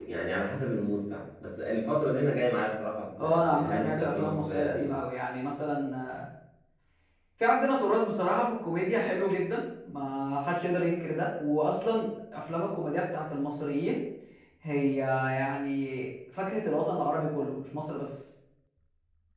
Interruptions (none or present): present